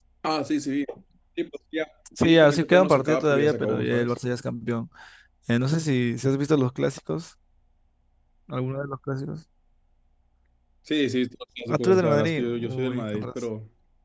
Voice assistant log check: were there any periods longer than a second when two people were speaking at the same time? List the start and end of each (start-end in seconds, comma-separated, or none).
2.2-4.1, 11.7-13.3